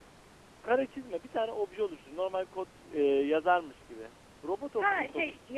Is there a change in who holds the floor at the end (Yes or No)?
Yes